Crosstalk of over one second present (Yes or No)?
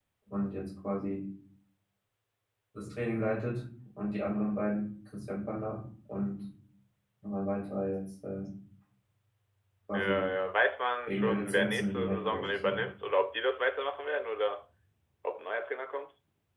Yes